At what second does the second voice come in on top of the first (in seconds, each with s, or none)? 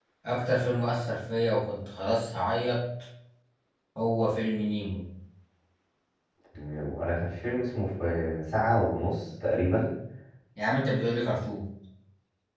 none